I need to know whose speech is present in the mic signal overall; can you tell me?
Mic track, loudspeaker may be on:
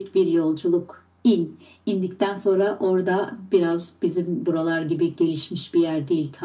echo only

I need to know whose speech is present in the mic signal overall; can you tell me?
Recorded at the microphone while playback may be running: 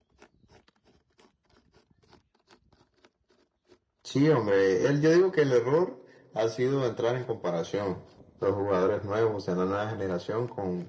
echo only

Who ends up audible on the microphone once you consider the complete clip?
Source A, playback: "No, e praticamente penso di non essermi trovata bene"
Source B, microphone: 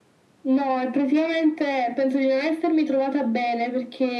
echo only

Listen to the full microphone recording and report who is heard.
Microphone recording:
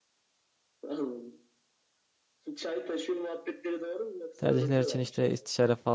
both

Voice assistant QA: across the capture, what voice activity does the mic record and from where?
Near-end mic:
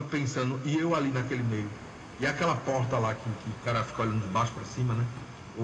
echo only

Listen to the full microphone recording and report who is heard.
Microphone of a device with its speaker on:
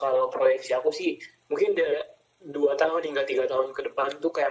echo only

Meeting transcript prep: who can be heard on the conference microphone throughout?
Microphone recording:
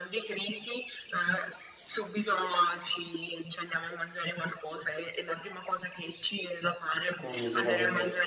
both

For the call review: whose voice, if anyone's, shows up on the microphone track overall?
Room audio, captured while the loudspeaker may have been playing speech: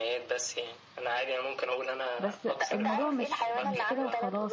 both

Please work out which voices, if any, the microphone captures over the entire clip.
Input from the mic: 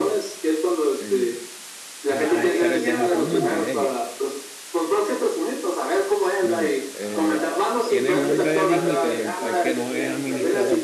both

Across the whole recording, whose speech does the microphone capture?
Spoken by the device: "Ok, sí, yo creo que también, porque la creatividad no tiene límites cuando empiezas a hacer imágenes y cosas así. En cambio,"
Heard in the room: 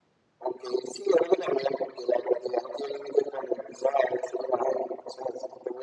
echo only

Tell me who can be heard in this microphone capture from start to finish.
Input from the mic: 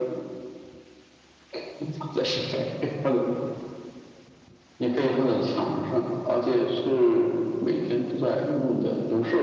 echo only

